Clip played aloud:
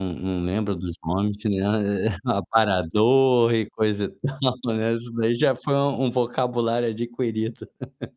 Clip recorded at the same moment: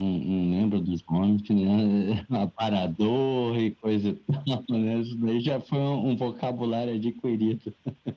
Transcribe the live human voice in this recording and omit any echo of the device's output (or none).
none